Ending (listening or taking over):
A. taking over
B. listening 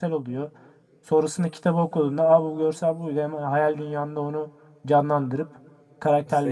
A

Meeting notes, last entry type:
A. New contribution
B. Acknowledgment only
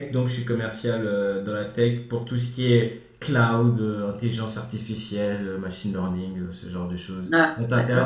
A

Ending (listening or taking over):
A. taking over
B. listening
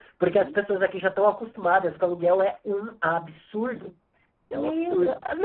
A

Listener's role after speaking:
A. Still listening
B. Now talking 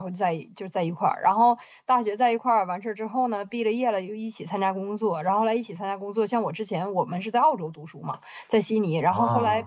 A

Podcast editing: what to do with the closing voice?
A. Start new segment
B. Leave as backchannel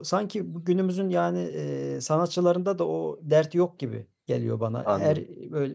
B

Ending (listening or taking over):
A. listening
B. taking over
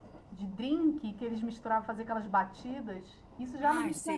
A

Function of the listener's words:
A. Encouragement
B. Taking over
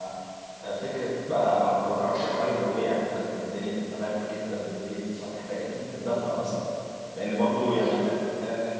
A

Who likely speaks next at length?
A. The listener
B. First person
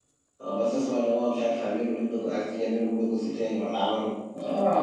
A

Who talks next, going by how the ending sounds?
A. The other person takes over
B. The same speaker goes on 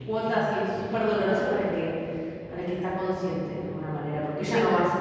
B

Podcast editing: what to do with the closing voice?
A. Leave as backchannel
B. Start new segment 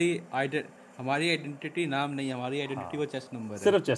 B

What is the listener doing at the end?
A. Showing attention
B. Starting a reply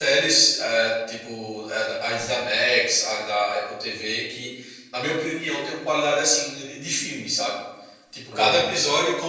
A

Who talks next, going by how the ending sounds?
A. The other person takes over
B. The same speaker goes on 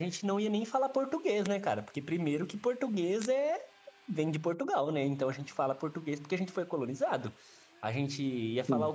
B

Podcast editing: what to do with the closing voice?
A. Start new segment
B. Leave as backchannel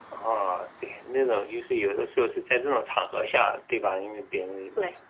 B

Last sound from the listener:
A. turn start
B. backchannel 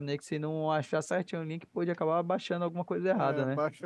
A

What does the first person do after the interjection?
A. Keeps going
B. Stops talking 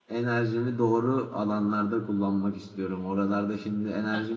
A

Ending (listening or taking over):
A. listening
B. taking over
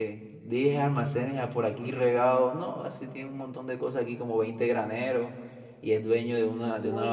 A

